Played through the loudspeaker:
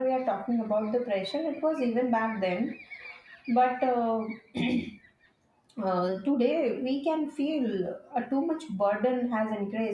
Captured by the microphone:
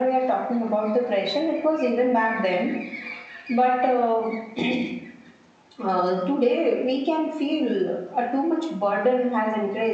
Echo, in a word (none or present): present